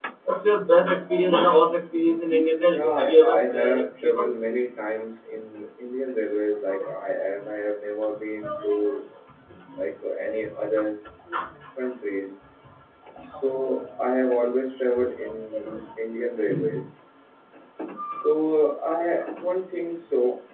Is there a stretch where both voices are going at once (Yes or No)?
Yes